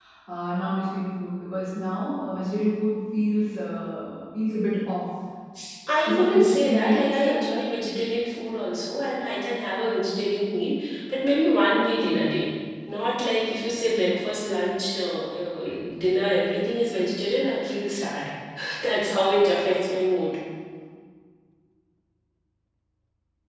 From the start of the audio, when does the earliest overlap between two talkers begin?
6.0 s

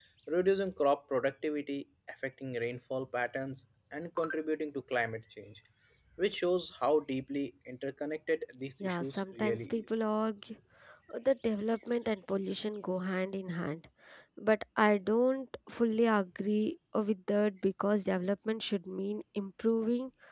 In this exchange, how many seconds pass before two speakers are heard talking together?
8.8 s

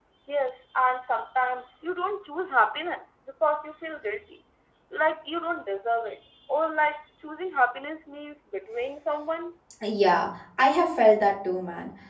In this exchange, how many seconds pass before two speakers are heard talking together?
none

